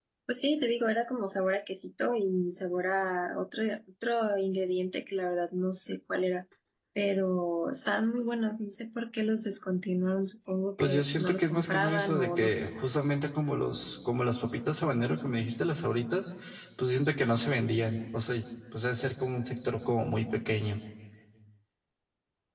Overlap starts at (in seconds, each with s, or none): 10.8 s